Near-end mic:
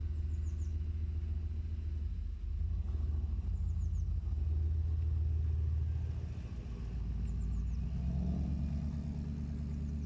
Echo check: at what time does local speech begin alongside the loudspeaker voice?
none

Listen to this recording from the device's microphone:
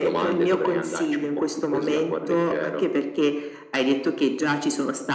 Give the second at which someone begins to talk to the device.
none

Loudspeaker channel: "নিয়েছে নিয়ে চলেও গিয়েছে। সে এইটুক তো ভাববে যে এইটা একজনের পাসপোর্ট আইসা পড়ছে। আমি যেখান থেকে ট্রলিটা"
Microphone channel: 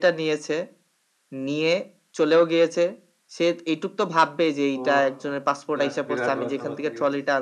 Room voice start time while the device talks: 4.8 s

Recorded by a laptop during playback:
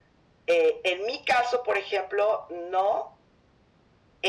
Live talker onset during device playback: none

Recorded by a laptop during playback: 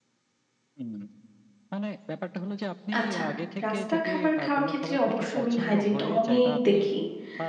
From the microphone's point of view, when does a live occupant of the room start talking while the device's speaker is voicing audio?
3.0 s

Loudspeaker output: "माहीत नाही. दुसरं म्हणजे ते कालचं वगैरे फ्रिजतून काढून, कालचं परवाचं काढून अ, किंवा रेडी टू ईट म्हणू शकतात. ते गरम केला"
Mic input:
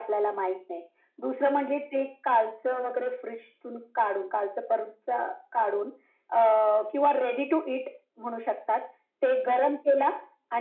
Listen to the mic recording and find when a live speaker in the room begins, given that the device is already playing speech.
none

